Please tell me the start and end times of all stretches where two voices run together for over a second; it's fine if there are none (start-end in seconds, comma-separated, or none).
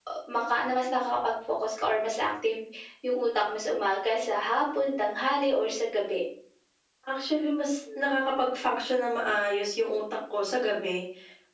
none